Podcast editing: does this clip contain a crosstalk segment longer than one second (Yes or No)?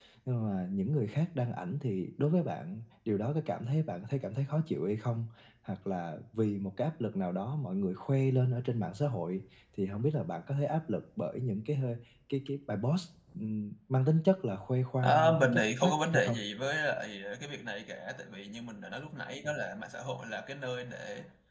Yes